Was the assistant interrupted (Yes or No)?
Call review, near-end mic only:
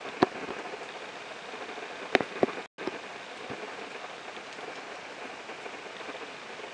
No